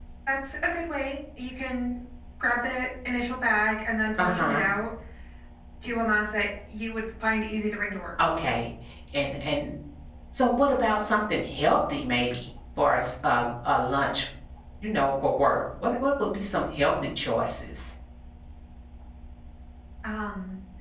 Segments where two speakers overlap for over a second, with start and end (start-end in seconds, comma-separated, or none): none